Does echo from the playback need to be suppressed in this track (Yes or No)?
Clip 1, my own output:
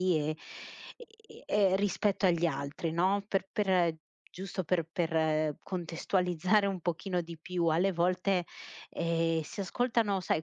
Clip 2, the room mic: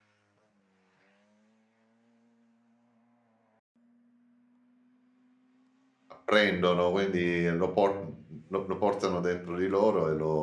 No